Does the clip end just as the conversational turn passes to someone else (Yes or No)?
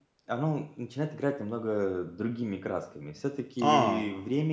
No